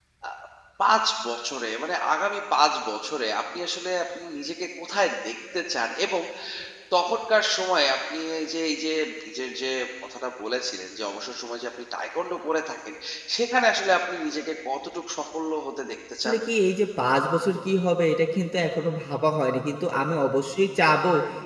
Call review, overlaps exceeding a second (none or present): none